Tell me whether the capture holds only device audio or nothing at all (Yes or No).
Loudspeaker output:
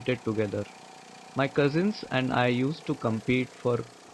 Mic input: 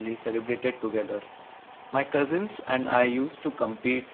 Yes